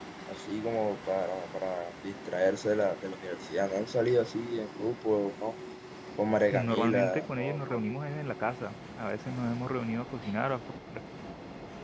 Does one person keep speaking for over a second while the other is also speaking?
Yes, from 6.5 s

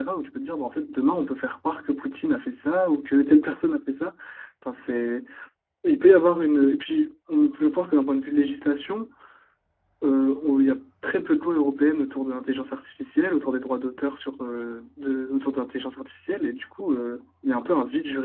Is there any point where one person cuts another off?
No

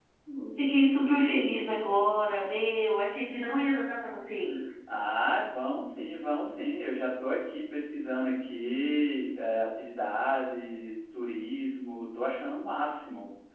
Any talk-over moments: No

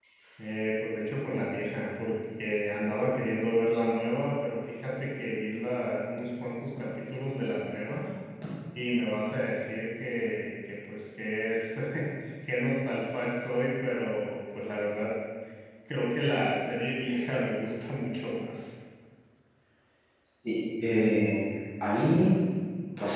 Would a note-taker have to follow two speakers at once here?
No

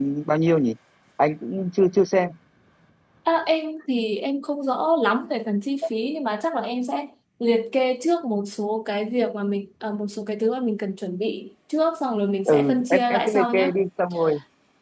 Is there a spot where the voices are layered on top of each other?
Yes, from 12.4 s

